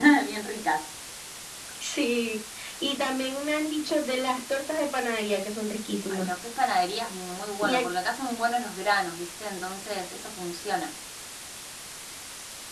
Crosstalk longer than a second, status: none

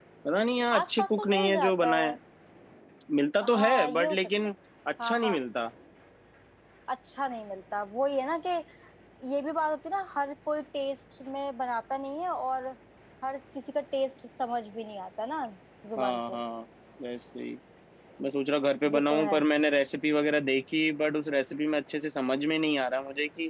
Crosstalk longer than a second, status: present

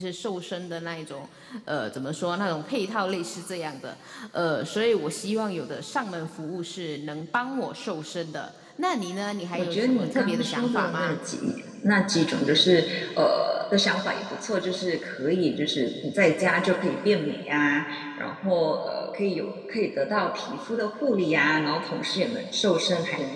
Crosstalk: present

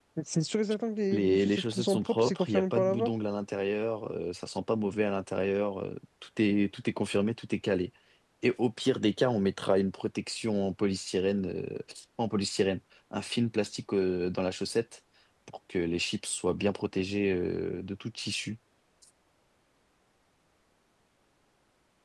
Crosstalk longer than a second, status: present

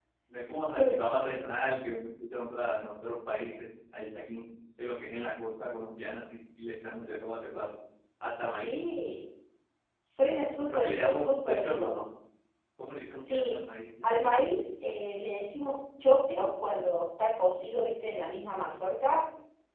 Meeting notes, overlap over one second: present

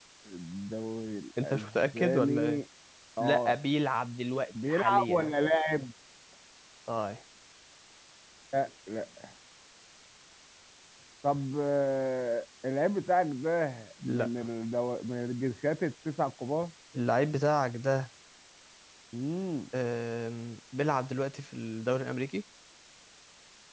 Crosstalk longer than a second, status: present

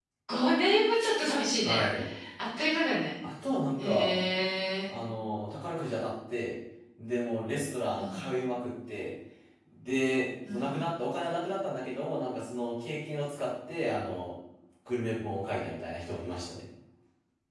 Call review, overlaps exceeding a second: none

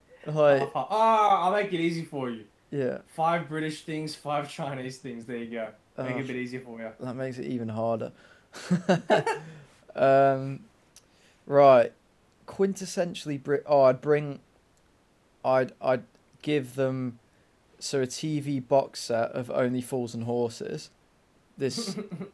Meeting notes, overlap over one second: none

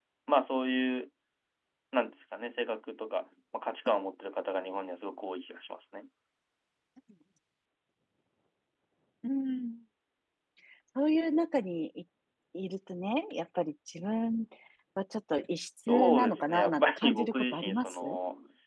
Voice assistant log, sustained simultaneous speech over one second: present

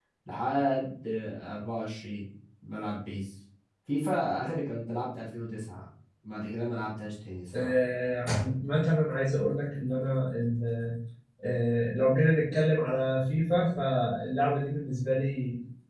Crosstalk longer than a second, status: none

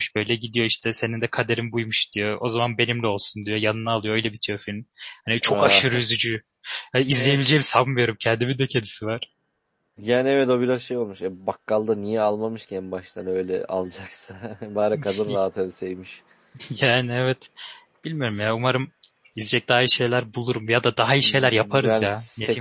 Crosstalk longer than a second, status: present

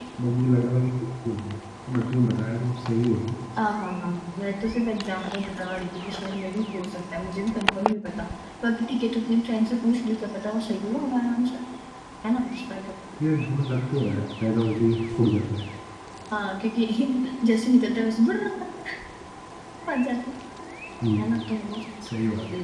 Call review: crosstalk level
none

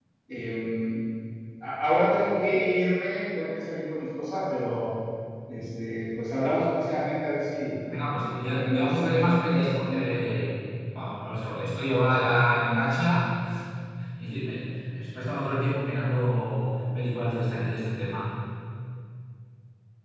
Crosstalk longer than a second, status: present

